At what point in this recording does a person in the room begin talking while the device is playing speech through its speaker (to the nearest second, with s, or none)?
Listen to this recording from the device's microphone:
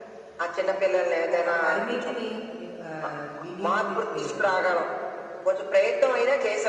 1 s